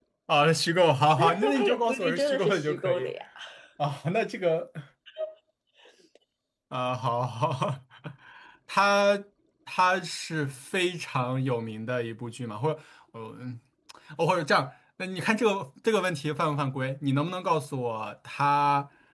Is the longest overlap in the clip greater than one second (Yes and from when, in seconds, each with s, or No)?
Yes, from 1.2 s